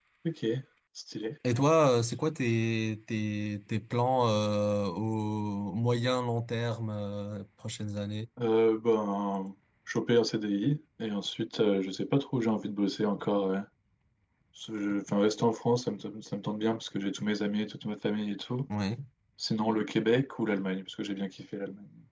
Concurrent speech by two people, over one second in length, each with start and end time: none

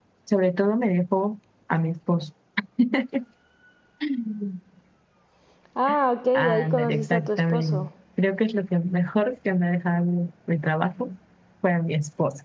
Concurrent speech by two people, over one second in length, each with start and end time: 6.3-7.9

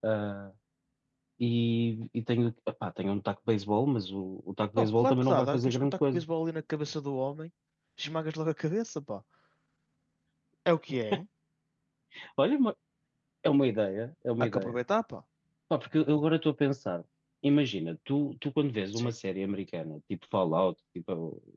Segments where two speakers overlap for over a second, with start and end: 4.7-6.2

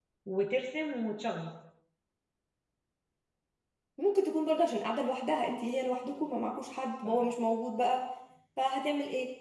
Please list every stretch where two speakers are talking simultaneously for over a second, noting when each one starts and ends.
none

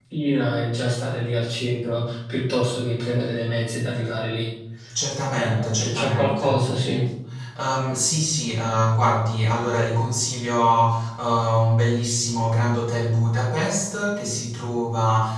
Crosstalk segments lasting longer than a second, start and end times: 5.3-6.6

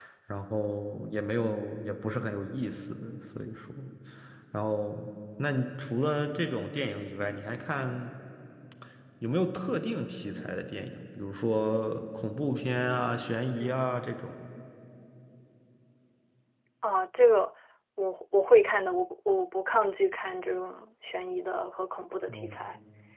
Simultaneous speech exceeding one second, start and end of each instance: none

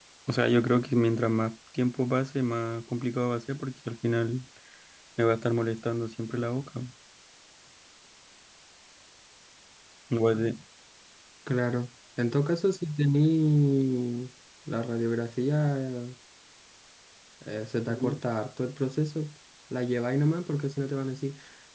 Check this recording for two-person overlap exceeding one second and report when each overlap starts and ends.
none

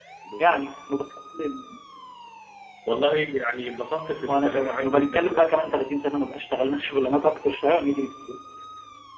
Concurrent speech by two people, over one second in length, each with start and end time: 4.2-6.0

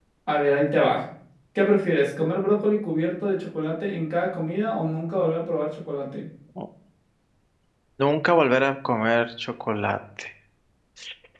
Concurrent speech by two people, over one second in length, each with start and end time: none

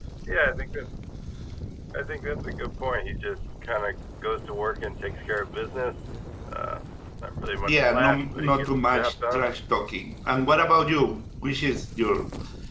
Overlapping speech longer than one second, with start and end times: 7.6-9.4

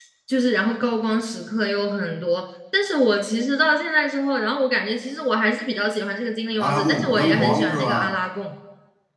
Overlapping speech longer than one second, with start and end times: 6.6-8.1

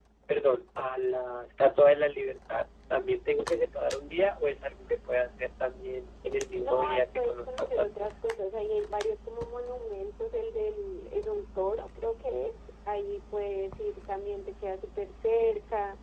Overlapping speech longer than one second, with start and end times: 6.6-8.1

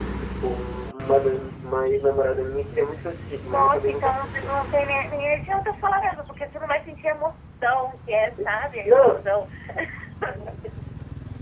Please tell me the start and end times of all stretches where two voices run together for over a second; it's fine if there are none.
3.4-4.6

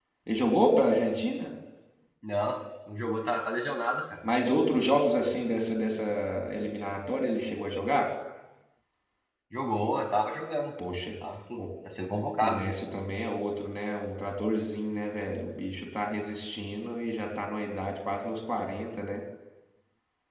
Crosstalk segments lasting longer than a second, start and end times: none

